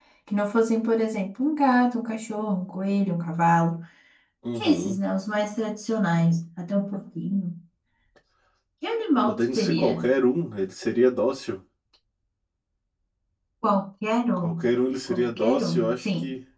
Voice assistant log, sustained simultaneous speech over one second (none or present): present